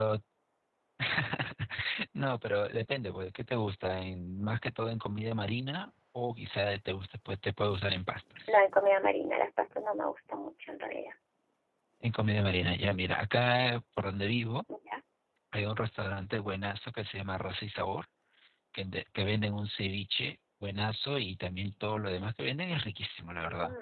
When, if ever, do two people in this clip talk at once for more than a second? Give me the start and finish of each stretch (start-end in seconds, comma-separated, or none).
none